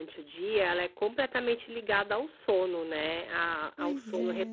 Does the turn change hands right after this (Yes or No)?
No